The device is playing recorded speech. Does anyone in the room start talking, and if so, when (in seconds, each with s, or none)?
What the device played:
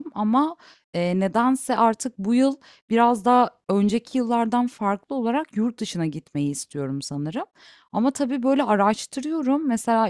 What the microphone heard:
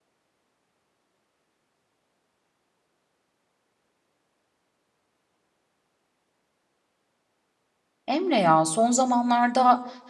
8.1 s